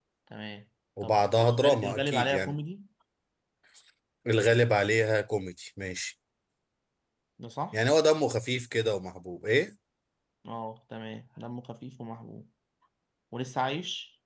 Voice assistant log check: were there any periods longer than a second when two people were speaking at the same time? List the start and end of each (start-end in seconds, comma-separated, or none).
1.0-2.5